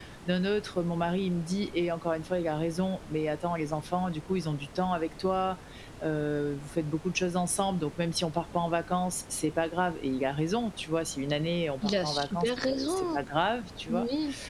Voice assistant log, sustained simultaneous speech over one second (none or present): present